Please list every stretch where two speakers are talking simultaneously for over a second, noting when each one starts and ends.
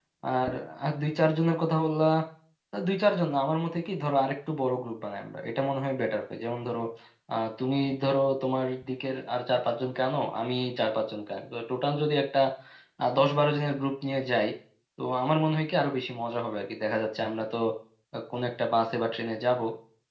none

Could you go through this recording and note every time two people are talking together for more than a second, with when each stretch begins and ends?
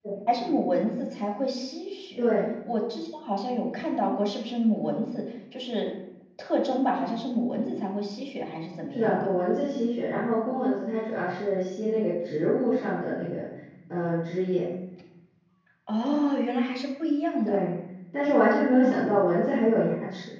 none

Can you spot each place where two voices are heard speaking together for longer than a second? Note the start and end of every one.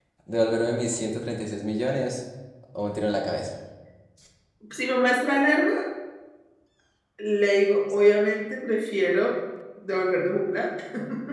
none

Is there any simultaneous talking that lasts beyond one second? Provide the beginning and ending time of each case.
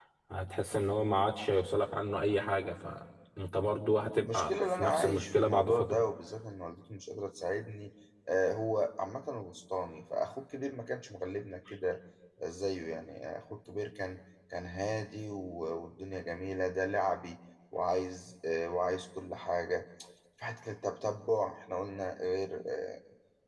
4.3-6.0

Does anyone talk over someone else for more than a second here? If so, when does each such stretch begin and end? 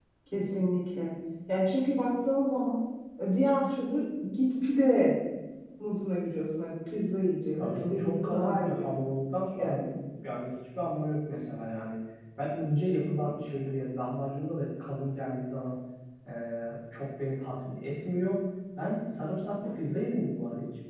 7.6-8.9

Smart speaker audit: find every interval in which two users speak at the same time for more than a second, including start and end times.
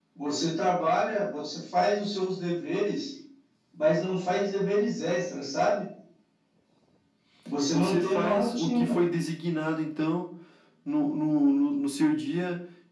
7.7-9.0

